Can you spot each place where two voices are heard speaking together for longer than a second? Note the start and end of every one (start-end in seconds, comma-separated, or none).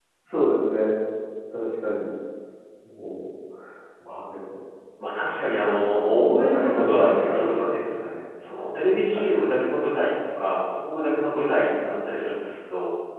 5.6-7.5